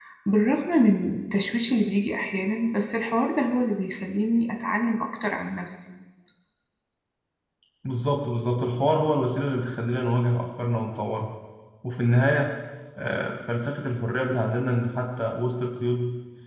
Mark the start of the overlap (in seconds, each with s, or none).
none